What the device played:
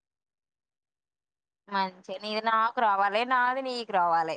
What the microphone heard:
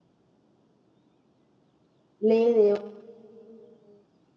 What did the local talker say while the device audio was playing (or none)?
లేదు